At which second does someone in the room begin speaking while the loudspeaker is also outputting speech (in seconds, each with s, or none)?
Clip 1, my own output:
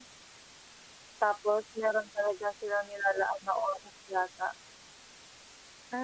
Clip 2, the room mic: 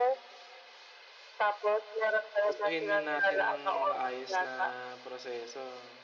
2.5 s